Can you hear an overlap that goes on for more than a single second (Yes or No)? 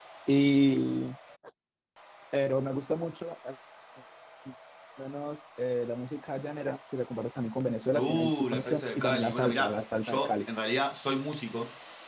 Yes